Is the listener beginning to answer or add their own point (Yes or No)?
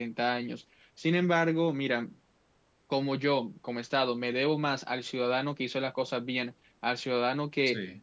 No